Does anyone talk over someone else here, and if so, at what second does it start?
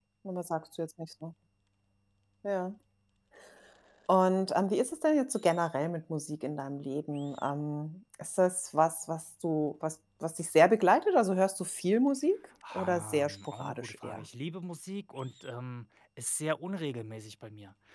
12.6 s

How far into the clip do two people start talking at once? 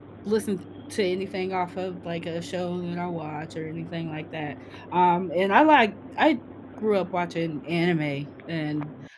none

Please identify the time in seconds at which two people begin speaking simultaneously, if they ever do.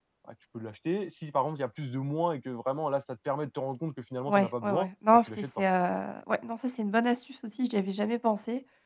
4.3 s

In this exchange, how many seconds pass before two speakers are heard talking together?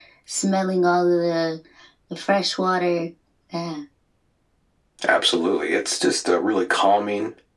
none

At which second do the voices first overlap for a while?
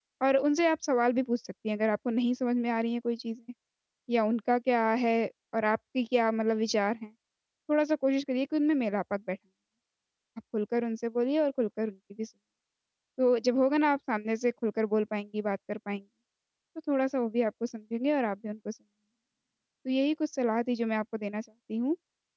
none

